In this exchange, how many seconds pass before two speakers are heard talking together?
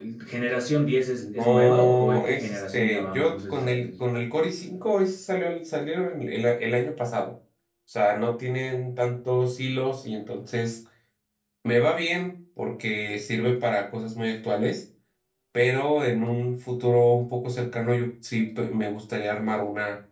1.2 s

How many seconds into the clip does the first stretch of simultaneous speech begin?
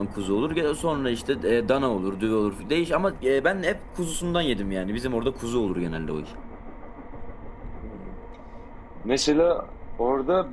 none

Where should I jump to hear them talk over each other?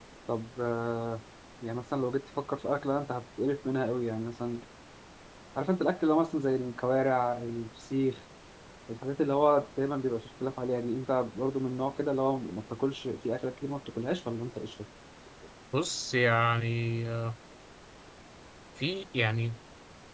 none

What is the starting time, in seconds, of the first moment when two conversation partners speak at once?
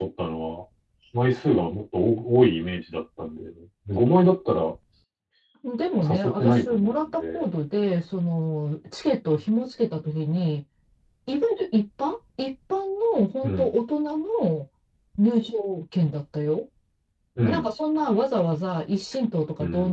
6.0 s

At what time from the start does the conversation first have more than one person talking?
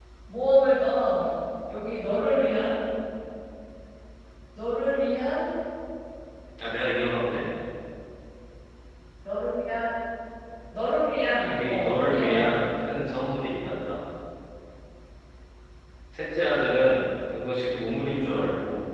11.4 s

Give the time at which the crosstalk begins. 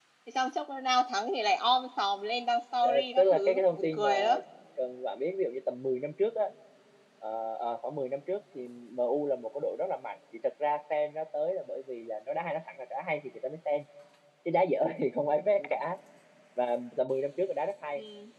2.8 s

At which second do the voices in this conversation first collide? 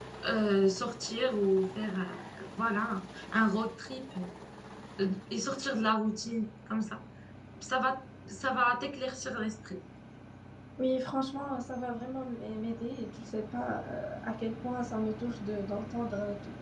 none

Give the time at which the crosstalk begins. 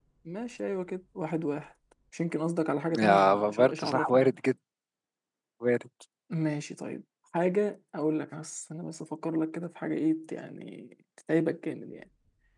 2.9 s

